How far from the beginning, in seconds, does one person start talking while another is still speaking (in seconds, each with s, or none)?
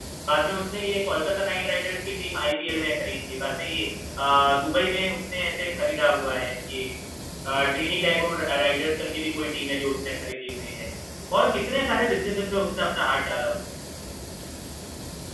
none